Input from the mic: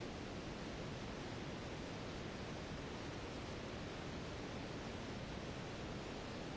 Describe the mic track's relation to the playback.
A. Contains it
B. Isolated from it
B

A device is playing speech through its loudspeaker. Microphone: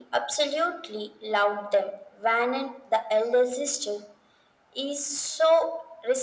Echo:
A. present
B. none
A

